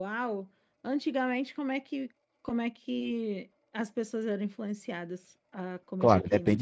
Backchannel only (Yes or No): No